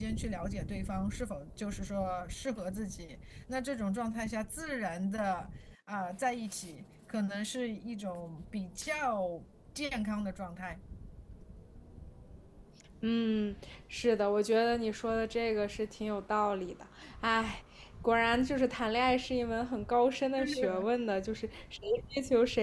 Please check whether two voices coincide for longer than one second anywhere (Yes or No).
No